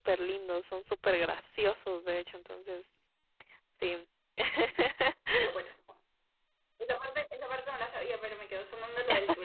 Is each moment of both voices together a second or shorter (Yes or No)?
Yes